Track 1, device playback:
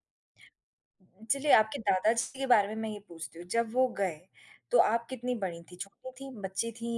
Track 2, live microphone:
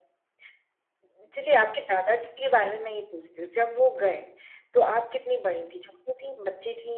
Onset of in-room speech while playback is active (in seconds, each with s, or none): none